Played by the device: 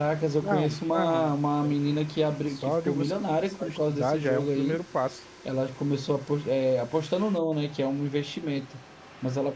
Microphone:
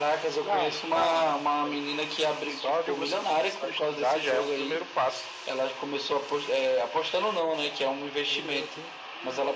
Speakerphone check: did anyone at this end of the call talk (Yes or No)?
Yes